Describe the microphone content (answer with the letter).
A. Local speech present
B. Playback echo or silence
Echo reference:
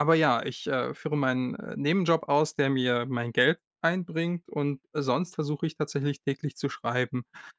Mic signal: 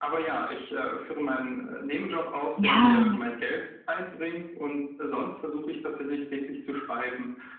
A